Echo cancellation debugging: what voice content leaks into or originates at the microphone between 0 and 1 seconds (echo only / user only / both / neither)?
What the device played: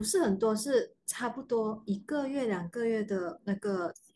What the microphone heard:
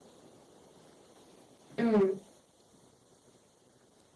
neither